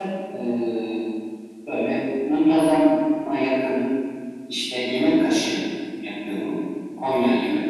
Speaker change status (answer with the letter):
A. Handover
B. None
B